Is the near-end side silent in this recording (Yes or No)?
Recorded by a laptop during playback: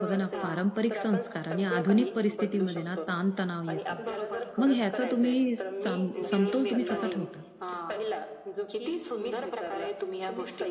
No